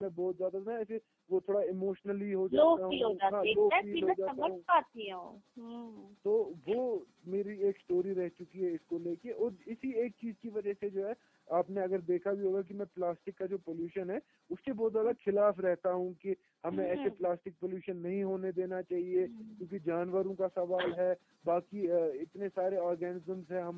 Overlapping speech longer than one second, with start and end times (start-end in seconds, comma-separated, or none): 2.6-4.5